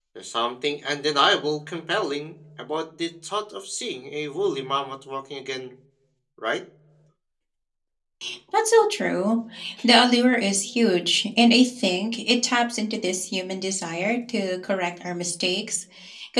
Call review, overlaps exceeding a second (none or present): none